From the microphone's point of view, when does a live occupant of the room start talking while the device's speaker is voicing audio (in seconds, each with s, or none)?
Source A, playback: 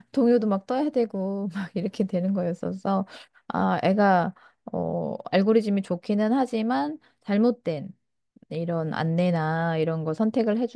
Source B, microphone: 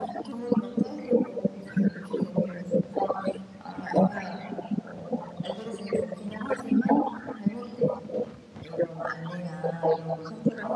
none